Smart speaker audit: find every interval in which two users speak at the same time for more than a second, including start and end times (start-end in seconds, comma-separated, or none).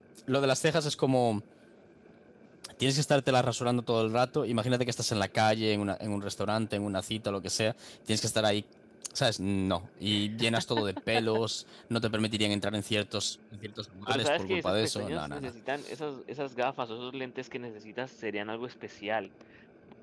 14.1-15.5